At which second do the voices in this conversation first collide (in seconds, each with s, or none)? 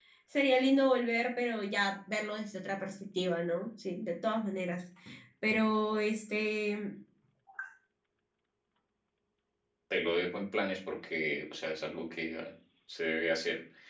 none